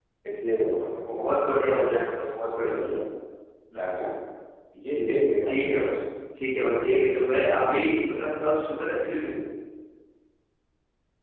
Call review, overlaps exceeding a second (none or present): none